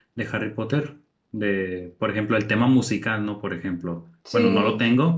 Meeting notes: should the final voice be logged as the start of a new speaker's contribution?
No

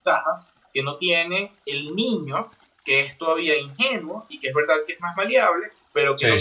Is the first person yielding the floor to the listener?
No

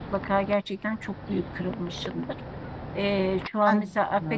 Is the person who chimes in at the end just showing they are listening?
Yes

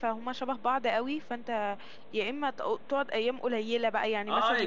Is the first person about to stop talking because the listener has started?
Yes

